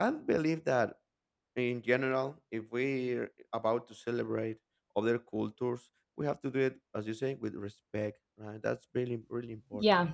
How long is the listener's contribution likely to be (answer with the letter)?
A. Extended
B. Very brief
A